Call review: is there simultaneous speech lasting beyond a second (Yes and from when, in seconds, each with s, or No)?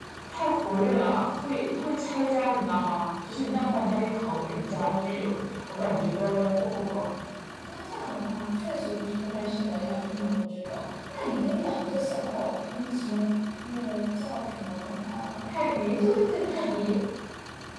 No